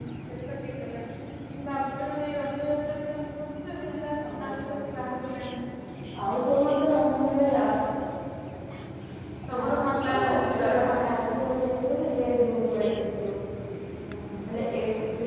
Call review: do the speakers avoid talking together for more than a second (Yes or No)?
No